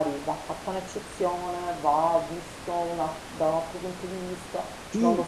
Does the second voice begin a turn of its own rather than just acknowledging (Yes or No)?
Yes